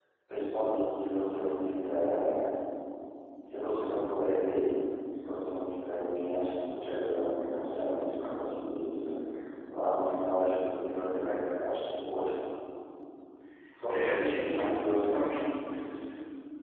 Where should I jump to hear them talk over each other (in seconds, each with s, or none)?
13.9 s